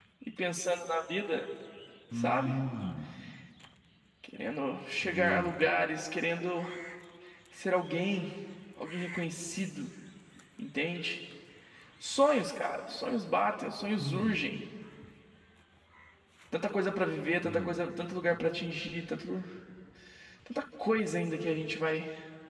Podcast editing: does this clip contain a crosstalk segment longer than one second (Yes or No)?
No